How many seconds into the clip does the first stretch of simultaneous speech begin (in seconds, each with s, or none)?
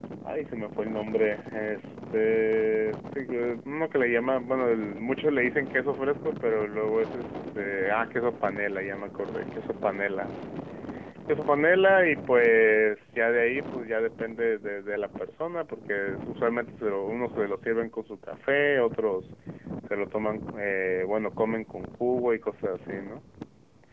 none